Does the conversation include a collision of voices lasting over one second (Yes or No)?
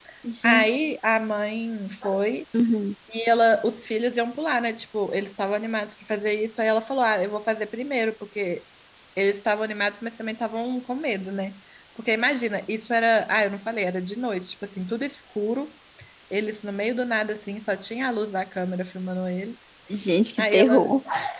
No